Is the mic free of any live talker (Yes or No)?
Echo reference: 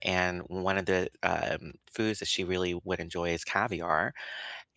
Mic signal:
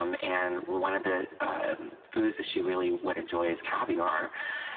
Yes